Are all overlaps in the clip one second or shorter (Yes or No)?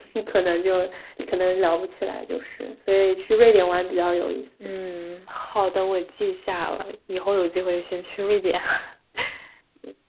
Yes